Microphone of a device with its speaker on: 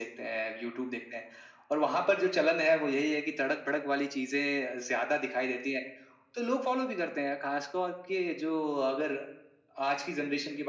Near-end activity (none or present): none